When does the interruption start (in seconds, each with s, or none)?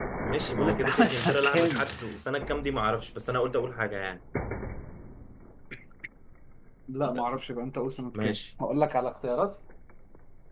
0.6 s